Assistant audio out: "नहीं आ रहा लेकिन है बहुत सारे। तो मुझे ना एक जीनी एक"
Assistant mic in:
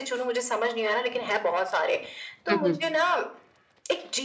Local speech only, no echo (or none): हुँ, हुँ।